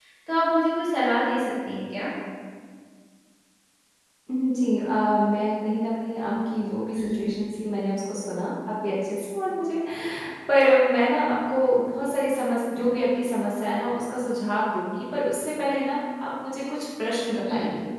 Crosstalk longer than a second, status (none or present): none